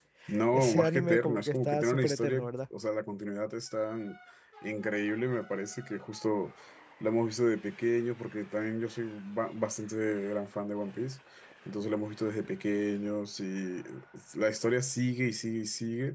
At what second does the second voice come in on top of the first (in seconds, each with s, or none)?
0.5 s